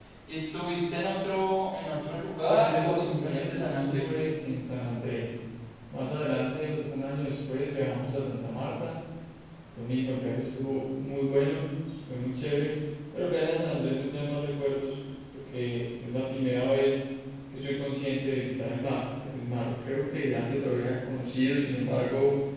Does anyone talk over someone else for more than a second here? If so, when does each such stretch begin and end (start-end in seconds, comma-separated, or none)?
2.5-4.1